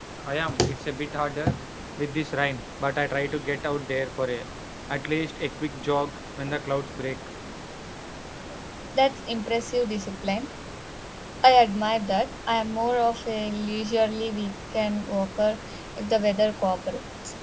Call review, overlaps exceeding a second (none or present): none